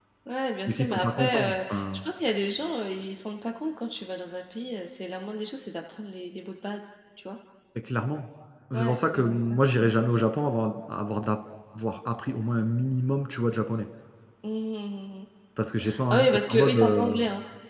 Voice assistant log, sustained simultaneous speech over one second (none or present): present